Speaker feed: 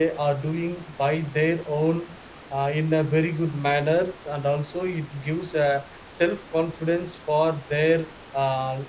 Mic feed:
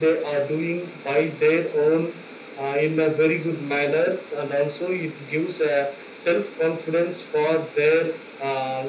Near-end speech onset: none

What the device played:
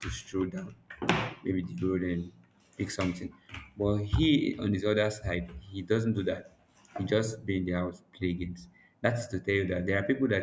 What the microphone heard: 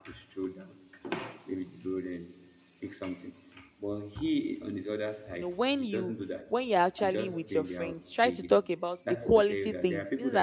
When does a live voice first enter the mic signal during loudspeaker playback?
5 s

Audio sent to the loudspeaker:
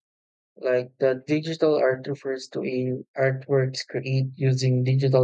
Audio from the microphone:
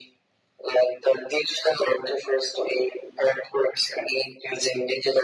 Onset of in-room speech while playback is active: none

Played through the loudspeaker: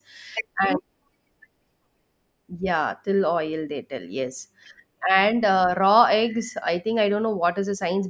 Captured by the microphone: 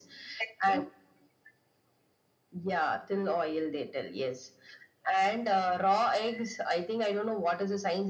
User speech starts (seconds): none

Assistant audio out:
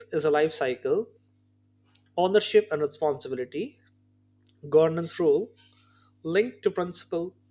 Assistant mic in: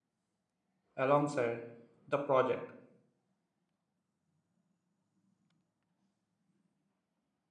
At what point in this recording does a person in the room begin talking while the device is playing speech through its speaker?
1 s

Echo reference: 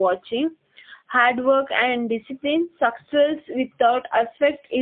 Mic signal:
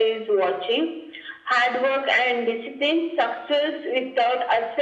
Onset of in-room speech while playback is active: none

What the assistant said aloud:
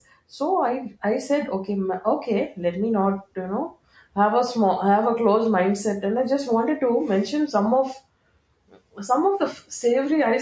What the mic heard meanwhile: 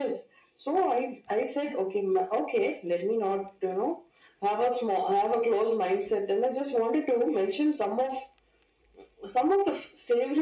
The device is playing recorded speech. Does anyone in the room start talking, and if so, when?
none

